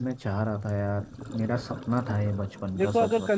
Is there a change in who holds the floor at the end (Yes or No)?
Yes